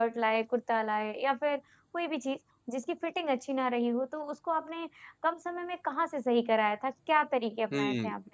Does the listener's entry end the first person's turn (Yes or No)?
Yes